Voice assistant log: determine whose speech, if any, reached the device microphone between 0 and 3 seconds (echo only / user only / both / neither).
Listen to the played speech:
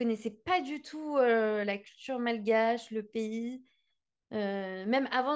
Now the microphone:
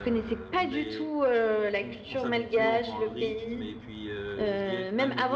both